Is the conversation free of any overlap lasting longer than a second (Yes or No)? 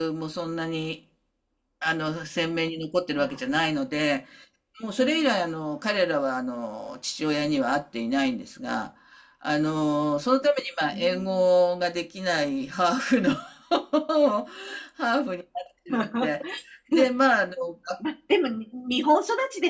Yes